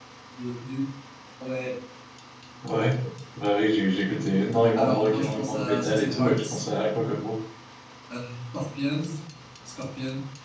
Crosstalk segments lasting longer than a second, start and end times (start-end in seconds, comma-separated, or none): 4.7-6.6